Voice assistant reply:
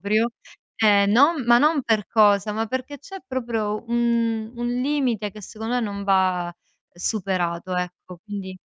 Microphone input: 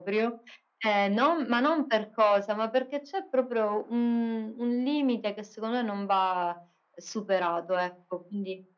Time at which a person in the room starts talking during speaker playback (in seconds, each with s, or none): none